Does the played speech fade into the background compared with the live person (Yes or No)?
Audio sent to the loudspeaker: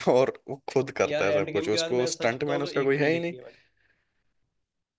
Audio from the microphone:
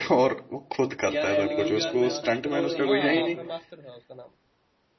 No